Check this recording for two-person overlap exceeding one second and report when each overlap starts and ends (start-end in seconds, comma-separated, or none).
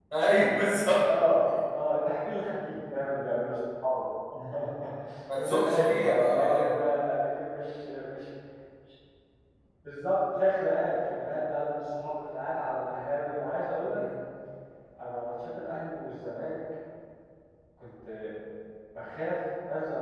5.3-6.8